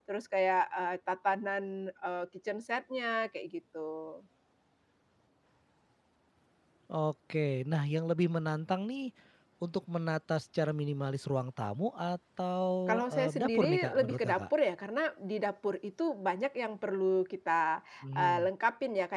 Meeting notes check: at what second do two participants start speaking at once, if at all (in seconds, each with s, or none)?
12.9 s